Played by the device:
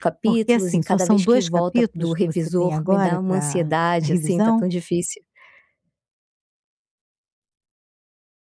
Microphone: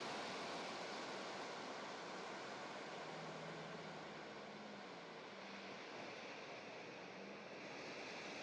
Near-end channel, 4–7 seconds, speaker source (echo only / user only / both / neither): neither